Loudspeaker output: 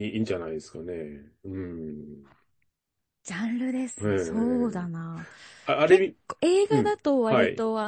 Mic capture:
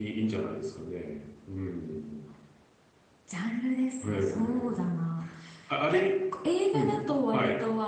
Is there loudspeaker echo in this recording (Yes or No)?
Yes